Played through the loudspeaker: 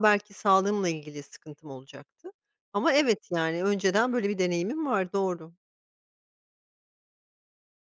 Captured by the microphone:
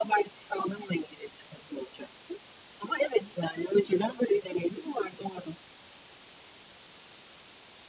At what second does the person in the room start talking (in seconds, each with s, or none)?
none